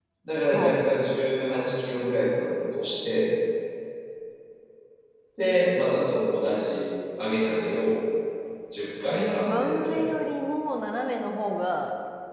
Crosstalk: present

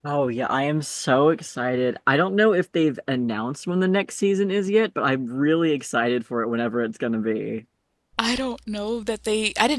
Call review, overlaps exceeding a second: none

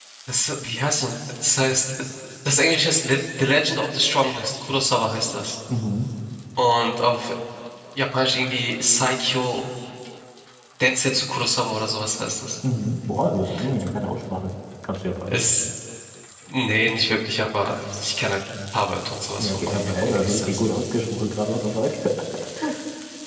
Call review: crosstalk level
present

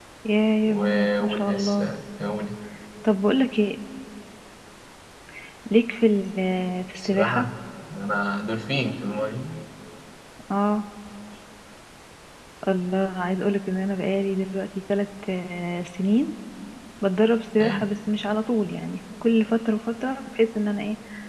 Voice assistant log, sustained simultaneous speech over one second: present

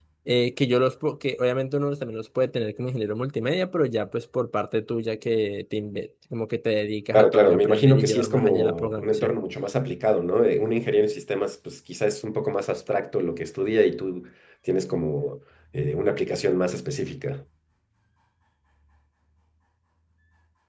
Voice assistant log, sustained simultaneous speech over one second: present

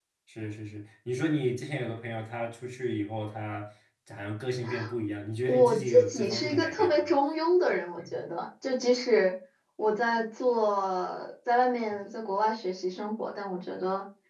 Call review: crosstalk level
present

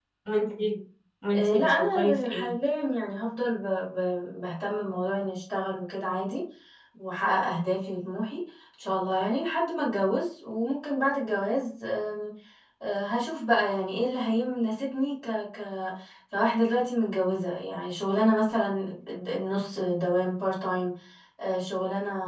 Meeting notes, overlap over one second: present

